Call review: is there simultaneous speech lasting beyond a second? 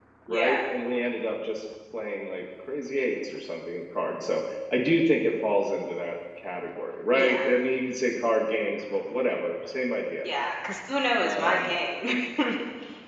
No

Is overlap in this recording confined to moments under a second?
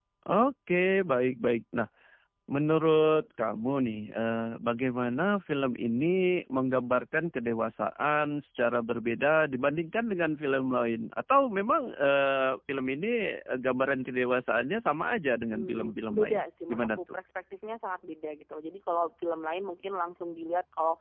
No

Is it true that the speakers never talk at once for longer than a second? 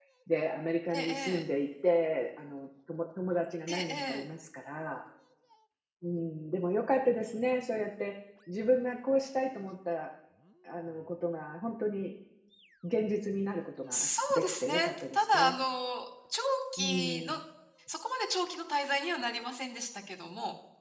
No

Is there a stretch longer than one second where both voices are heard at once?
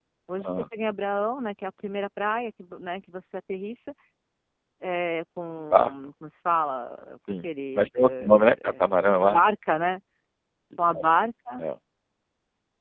Yes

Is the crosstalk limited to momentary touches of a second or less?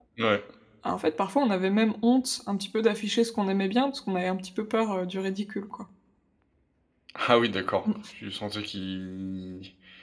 Yes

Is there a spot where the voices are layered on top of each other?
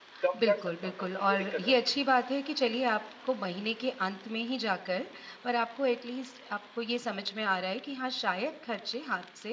Yes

